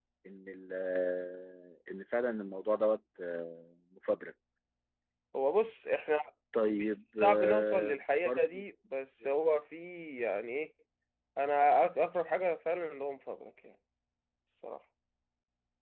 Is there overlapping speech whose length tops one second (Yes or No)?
Yes